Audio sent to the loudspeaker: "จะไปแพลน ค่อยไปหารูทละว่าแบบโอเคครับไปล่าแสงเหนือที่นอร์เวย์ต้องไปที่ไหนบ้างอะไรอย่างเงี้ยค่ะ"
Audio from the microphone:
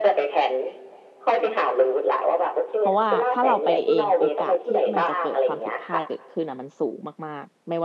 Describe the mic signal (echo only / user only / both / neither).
both